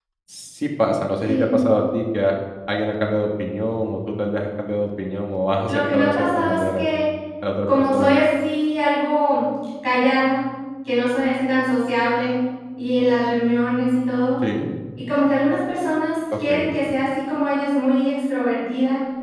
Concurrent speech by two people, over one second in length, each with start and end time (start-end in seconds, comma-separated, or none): 5.7-6.9